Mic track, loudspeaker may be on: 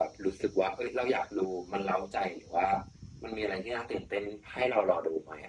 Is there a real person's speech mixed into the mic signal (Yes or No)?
No